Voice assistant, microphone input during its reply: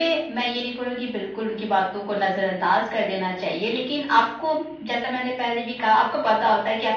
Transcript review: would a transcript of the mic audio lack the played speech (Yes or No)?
No